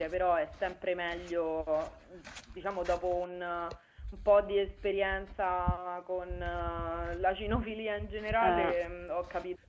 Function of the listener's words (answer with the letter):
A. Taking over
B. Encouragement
B